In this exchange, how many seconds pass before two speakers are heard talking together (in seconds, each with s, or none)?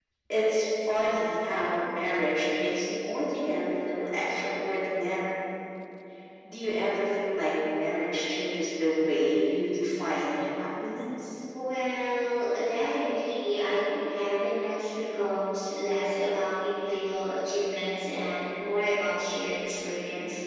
none